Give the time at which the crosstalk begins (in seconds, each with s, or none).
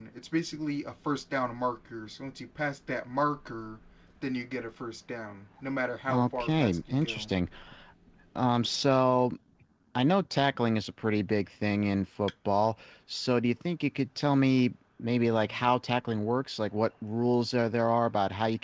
6.1 s